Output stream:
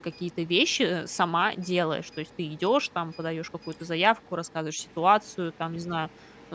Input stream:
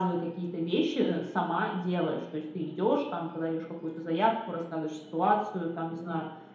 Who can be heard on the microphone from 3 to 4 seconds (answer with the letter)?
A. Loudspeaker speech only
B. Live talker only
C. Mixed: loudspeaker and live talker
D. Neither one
A